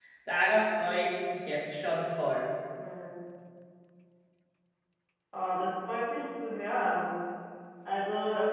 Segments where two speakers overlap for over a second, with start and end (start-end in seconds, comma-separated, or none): none